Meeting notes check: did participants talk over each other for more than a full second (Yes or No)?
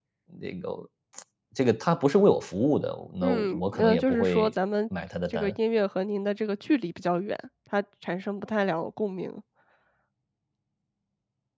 Yes